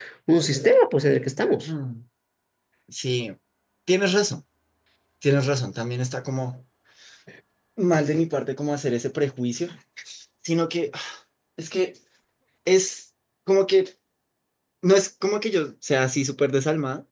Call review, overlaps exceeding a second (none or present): none